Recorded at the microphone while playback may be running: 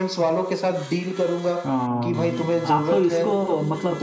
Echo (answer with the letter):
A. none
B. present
B